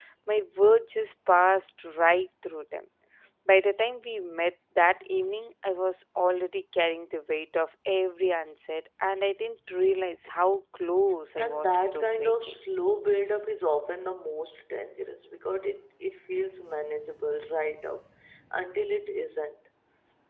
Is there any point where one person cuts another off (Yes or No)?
Yes